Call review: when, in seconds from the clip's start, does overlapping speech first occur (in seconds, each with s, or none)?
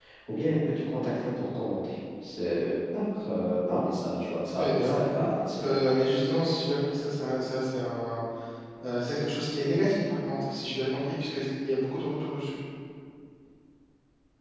4.6 s